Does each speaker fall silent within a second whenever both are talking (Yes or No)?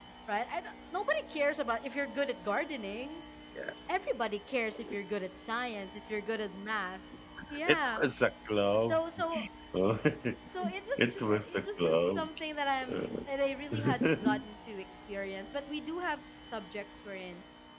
No